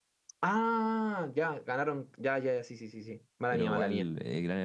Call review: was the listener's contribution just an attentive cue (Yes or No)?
No